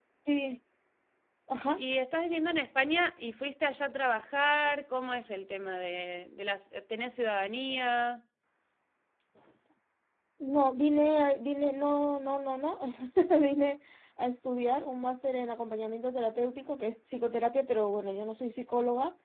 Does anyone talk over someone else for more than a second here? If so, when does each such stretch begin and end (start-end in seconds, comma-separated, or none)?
none